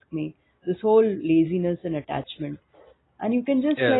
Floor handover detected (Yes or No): No